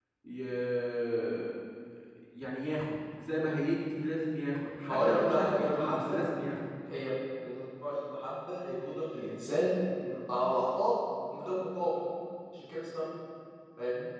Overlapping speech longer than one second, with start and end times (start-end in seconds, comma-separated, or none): 4.9-6.2